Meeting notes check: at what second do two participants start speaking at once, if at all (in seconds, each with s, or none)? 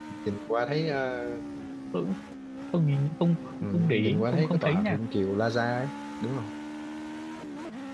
3.6 s